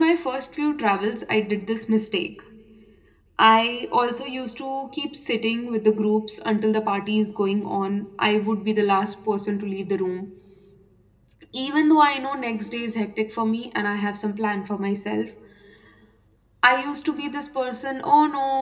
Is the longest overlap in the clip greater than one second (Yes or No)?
No